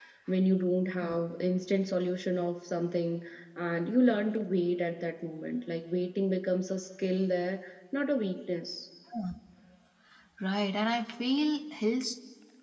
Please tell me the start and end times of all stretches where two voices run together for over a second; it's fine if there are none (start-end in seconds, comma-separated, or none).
none